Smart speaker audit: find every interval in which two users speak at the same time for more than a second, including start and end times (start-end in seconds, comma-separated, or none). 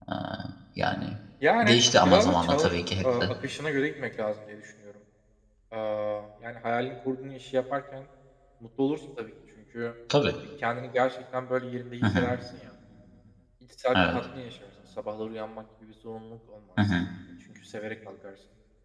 1.6-3.2